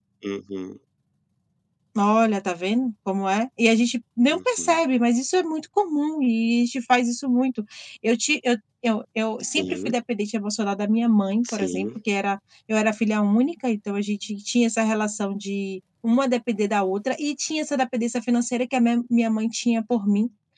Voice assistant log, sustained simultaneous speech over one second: none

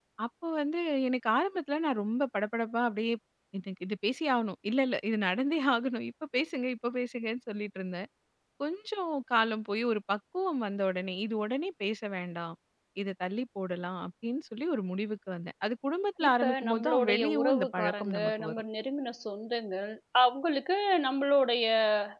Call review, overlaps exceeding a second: present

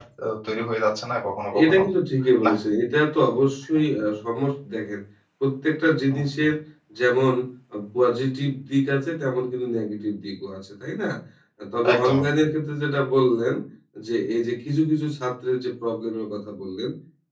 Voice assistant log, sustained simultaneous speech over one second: none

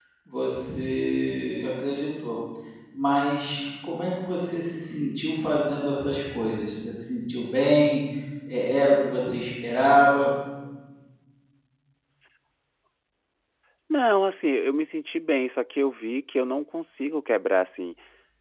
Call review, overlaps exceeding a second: none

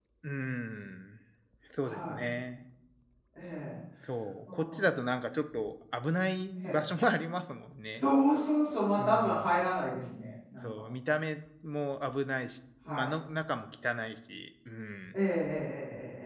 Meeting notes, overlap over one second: none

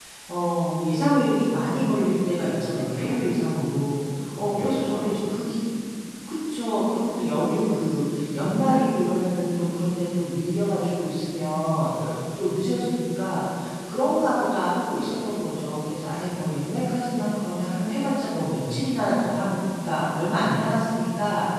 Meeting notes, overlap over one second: present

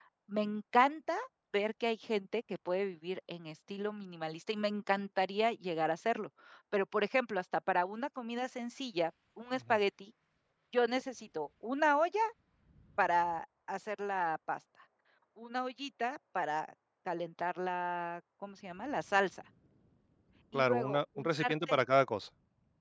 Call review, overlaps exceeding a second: present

